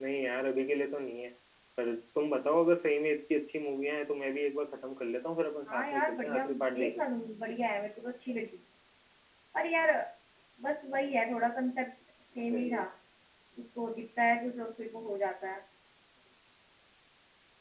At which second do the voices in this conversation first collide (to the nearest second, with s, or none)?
6 s